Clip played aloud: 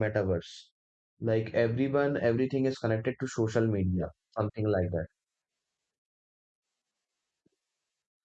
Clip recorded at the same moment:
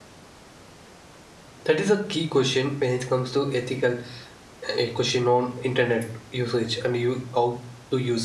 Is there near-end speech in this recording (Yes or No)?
Yes